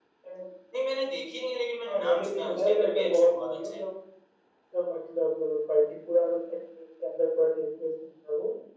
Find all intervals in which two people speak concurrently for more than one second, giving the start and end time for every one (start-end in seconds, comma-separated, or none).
1.9-3.8